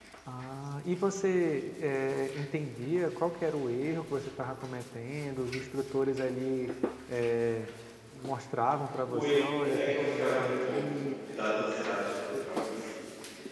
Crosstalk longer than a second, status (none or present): present